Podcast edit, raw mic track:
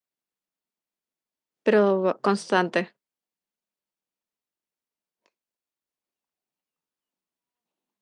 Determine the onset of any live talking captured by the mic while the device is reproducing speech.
1.6 s

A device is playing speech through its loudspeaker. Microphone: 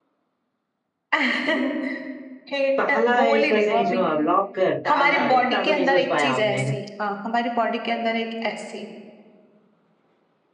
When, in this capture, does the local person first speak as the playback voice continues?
2.8 s

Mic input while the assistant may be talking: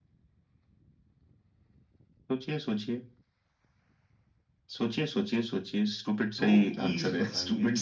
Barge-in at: 6.4 s

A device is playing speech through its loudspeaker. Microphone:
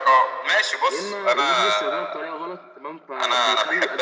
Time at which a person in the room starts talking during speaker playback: 0.9 s

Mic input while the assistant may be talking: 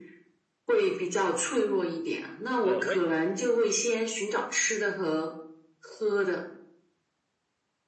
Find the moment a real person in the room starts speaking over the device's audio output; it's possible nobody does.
2.6 s

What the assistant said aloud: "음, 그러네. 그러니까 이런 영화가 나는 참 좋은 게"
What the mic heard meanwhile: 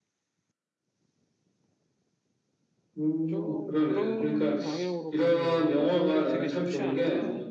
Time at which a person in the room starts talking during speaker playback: 3.2 s

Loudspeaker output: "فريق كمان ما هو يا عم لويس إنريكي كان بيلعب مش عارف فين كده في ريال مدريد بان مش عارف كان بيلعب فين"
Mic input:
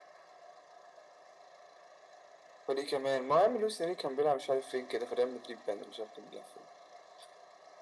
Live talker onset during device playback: none

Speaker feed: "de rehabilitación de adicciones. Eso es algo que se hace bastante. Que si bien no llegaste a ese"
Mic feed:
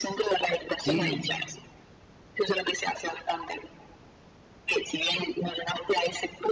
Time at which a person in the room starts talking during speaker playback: 0.8 s

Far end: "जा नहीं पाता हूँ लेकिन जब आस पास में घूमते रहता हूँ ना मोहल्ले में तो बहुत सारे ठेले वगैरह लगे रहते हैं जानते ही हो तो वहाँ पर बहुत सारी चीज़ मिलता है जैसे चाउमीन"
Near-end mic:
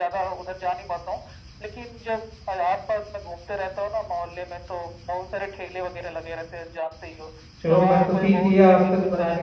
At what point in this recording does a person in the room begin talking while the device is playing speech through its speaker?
7.6 s

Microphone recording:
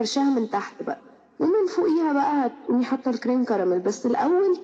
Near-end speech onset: none

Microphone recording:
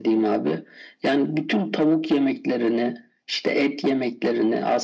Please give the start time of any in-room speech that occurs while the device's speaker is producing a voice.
none

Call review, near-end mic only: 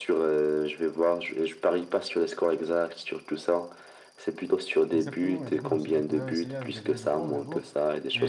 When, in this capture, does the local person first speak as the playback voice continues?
4.9 s

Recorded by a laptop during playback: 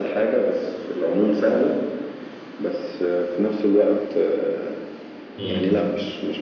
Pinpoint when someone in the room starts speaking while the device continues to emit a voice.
5.4 s

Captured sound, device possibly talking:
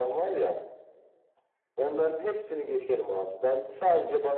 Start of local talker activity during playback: none

